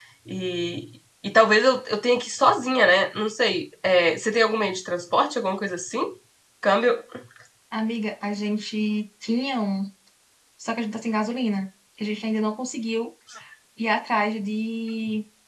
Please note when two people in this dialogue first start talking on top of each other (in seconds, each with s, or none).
none